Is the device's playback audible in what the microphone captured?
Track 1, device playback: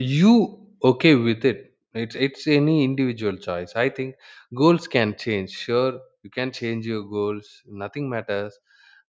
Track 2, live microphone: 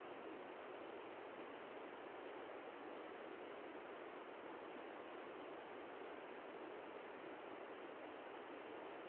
No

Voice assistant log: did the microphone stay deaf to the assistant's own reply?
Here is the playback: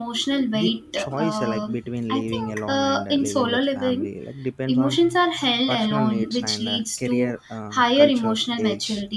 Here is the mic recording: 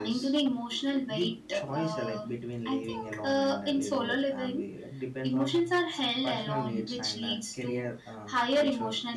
No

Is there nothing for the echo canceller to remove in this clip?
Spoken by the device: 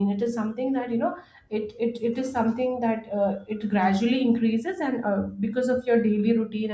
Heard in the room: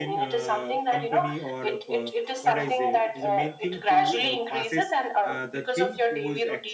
No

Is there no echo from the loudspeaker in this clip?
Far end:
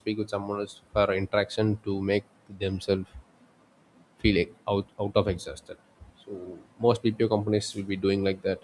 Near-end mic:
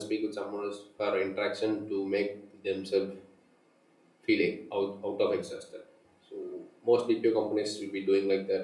No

